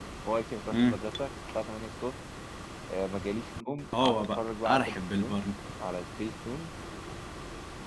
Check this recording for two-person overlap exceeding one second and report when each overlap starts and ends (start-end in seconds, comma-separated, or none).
4.0-5.4